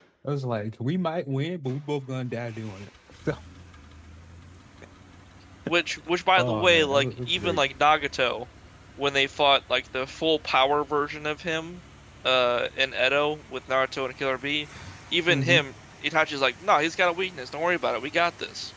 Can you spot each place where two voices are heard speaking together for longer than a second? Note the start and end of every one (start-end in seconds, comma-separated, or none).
6.4-7.6